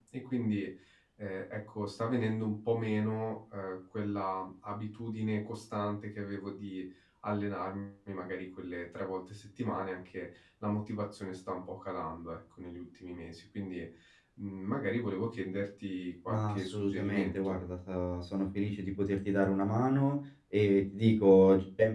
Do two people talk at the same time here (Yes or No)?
Yes